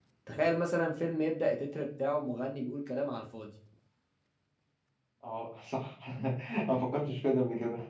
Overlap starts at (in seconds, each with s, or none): none